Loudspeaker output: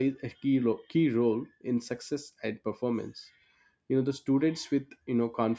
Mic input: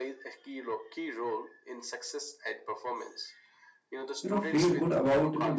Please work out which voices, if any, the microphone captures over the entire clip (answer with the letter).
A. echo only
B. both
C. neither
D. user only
B